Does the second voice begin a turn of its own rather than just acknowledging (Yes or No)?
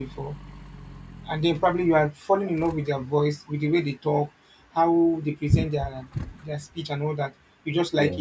No